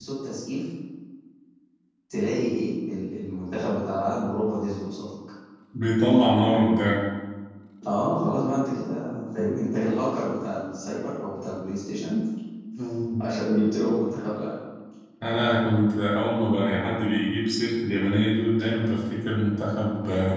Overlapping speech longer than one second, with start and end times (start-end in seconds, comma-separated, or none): none